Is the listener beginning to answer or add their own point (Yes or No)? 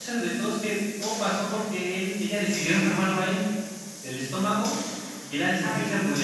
No